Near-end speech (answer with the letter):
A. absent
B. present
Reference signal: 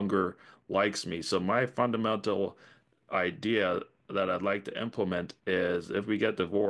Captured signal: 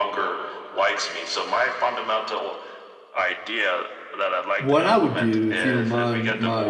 B